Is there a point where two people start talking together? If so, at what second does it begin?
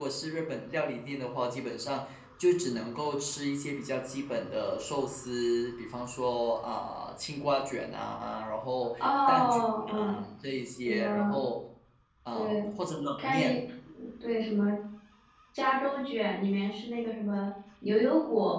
9.0 s

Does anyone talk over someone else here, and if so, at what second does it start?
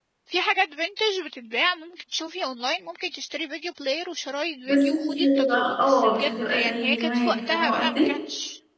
4.7 s

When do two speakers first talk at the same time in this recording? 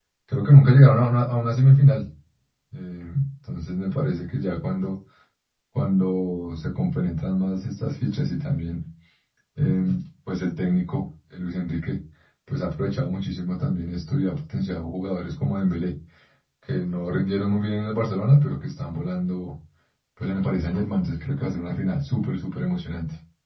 none

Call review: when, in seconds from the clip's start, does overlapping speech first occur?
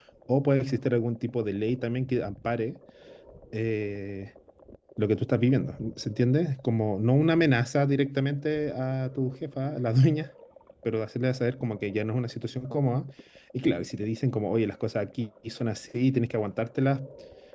none

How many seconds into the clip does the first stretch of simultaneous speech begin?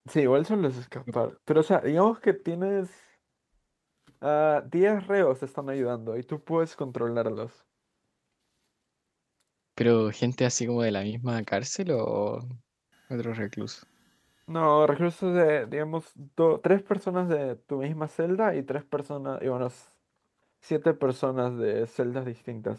none

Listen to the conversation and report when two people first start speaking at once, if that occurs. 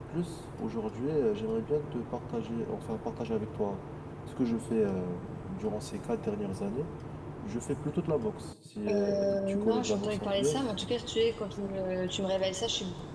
8.9 s

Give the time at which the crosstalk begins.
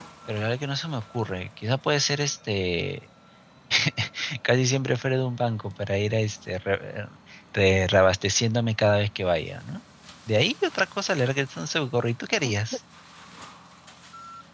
none

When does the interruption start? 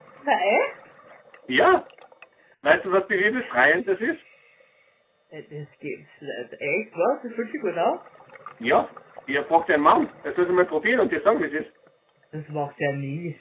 none

